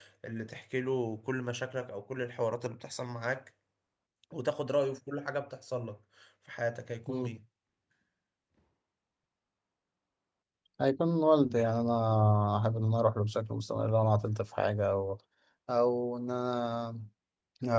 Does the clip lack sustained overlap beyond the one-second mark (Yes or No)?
Yes